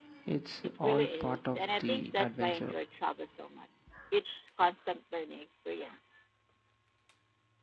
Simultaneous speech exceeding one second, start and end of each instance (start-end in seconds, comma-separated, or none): 0.8-2.8